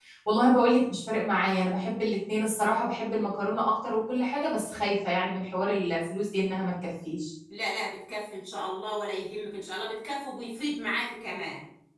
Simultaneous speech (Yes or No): No